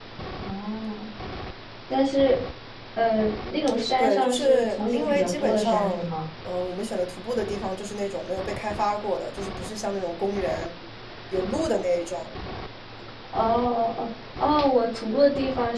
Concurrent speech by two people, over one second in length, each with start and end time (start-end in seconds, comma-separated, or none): 4.0-6.0